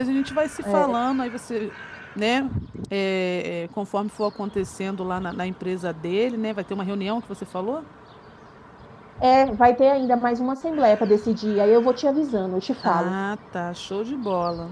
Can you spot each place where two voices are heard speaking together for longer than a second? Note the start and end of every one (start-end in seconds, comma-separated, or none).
none